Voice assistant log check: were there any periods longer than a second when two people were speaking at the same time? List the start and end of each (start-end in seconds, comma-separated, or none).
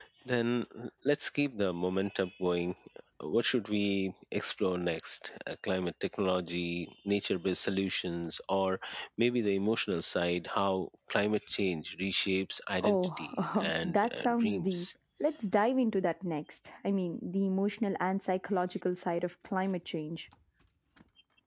12.8-14.8